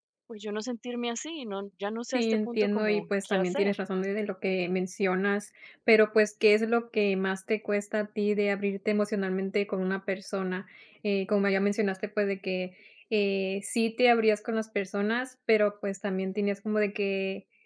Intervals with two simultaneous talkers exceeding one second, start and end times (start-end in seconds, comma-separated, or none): 2.1-3.8